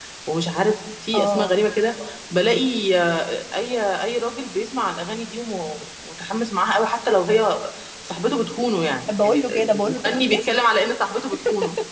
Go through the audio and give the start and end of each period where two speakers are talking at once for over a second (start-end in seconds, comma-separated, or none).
9.2-10.5